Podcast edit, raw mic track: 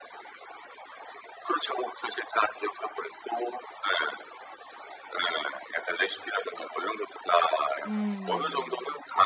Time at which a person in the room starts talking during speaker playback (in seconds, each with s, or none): 7.8 s